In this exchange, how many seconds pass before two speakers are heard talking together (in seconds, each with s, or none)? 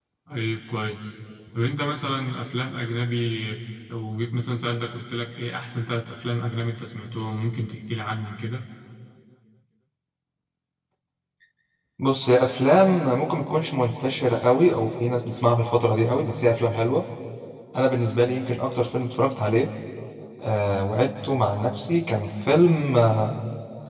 none